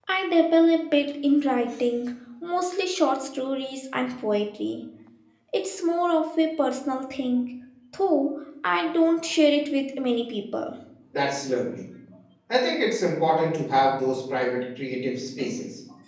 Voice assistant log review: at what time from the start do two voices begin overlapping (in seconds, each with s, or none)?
none